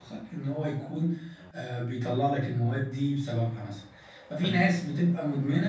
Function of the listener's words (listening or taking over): listening